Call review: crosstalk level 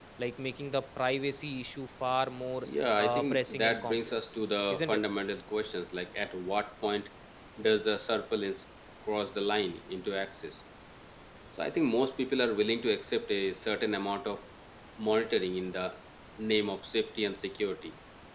present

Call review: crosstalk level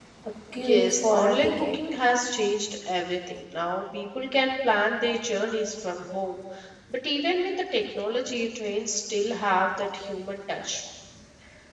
present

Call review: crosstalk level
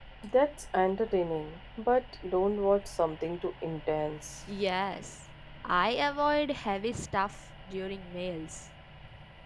none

